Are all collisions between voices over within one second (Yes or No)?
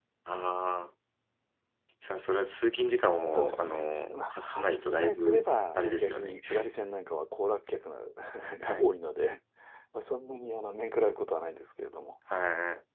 No